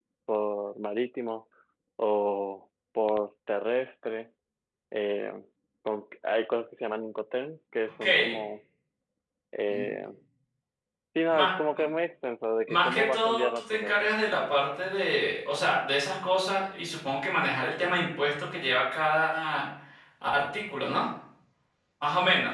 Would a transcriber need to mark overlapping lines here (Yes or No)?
Yes